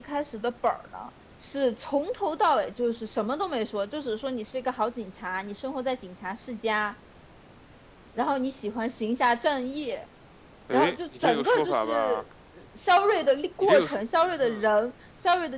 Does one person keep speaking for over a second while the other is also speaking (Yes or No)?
Yes